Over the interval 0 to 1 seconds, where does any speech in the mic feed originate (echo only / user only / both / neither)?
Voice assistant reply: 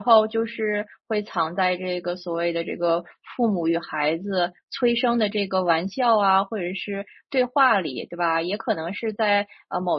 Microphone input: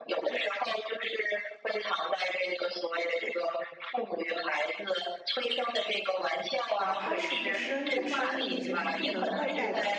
echo only